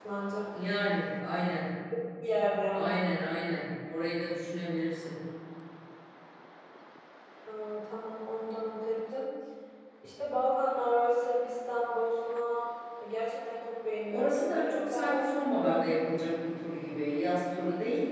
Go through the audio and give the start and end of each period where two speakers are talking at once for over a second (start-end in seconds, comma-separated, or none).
14.1-15.4